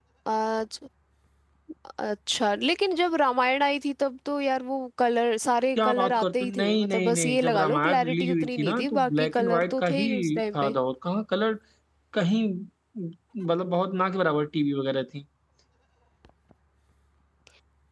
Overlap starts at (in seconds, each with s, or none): 5.8 s